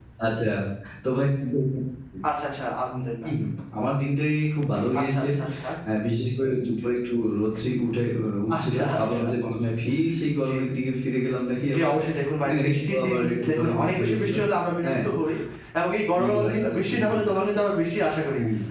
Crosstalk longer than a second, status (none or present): present